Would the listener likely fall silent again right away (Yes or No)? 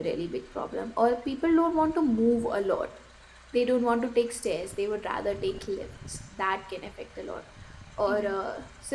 Yes